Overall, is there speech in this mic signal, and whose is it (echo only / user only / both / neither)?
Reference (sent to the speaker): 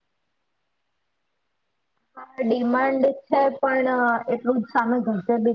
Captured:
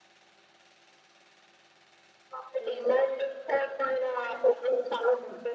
echo only